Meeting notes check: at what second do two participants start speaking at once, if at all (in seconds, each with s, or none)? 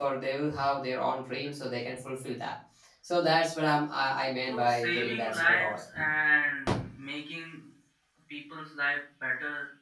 4.5 s